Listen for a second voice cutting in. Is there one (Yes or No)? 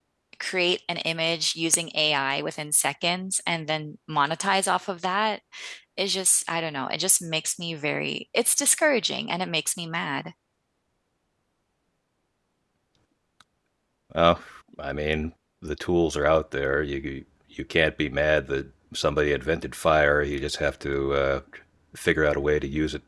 No